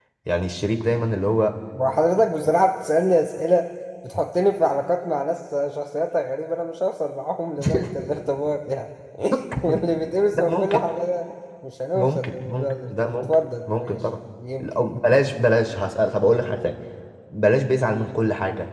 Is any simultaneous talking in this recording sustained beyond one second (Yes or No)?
Yes